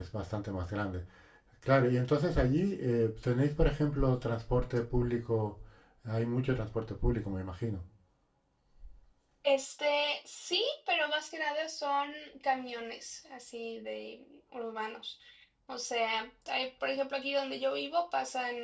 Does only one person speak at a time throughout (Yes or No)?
Yes